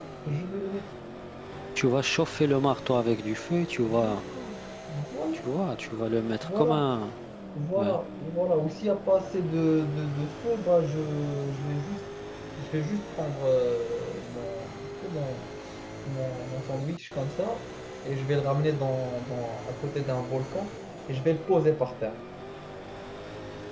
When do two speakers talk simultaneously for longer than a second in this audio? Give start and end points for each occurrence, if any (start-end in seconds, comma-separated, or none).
none